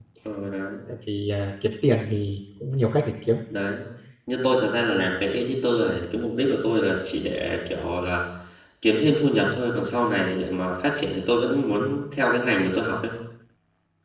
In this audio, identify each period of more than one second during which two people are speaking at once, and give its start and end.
none

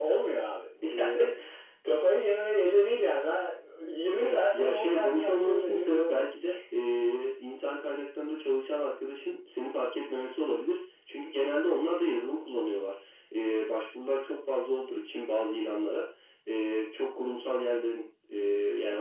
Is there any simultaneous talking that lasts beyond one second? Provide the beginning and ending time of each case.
4.1-6.3

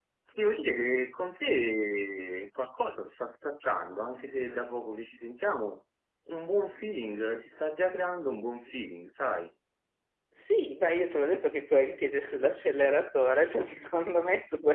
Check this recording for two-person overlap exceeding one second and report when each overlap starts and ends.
none

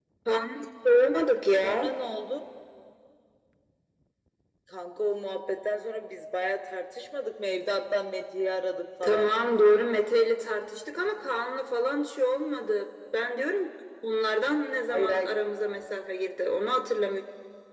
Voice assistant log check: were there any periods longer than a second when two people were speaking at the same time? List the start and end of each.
none

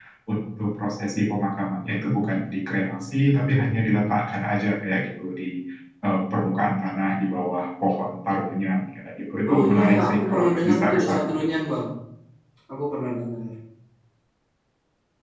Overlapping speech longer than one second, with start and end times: 9.5-11.4

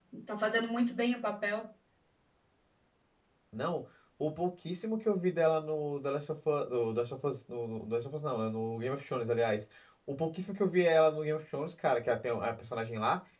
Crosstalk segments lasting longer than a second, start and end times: none

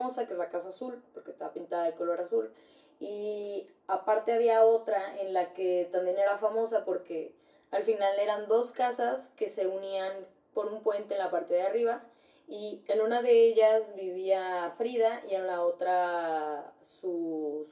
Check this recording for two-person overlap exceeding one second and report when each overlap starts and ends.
none

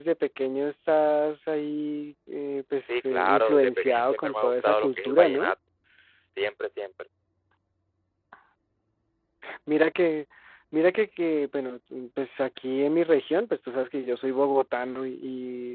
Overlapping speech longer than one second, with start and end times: 2.9-5.5

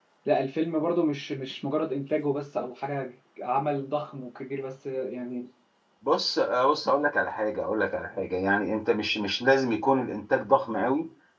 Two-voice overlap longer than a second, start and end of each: none

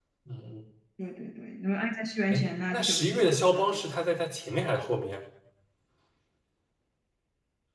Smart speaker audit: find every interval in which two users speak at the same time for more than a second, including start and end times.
2.3-3.8

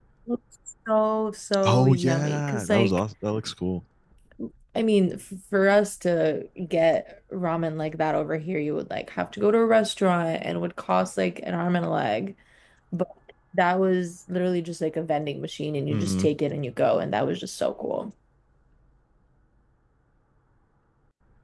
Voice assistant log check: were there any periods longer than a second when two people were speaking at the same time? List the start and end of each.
1.6-3.0

